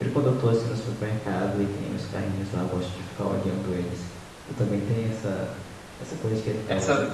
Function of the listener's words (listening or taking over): listening